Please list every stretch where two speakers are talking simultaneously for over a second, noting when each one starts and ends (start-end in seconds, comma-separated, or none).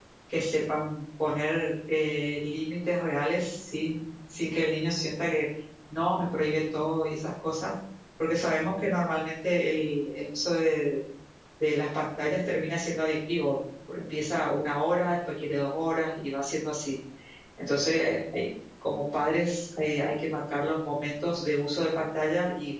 none